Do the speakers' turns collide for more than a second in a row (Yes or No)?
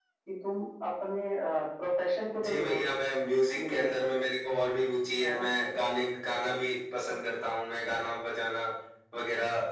No